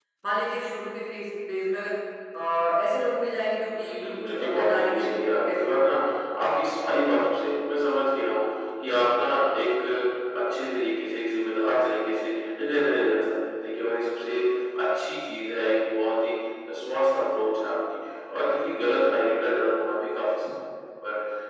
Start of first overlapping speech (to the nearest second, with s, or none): 4 s